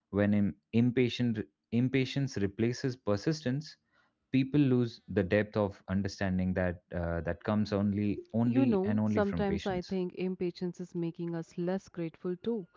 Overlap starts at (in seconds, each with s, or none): 8.5 s